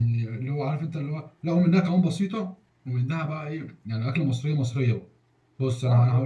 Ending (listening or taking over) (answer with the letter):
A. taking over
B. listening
B